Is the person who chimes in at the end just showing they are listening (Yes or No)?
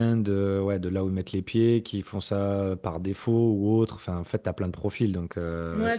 No